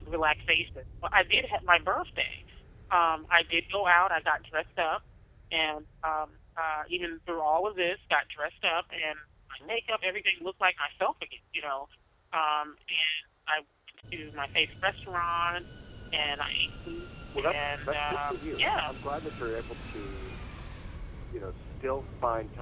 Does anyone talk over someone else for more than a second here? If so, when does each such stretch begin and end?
17.5-18.9

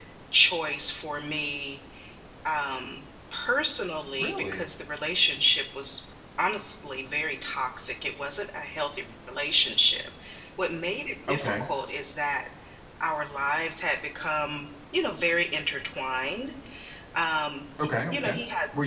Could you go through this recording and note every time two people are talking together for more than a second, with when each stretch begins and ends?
none

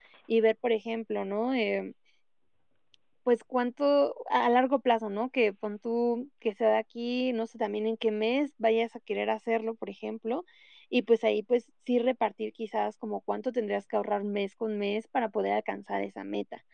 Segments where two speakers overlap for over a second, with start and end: none

